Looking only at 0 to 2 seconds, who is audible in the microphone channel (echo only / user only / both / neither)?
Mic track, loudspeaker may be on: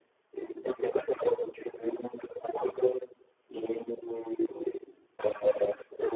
echo only